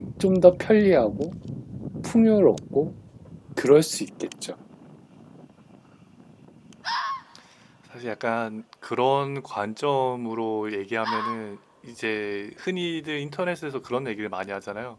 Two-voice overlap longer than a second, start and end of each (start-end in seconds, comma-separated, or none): none